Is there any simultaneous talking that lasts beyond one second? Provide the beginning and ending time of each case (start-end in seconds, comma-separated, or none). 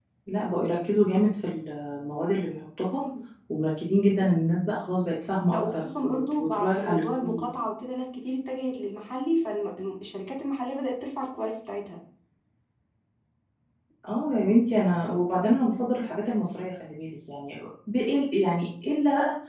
5.5-7.4